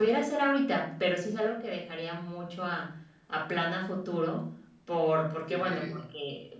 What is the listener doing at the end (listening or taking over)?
listening